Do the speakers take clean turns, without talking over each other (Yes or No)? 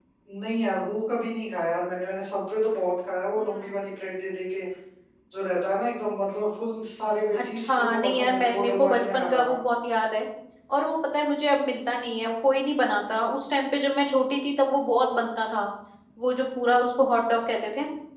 No